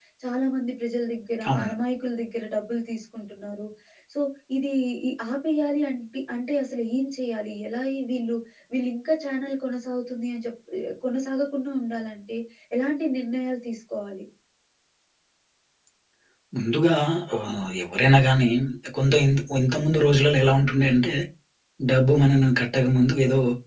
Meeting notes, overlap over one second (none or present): none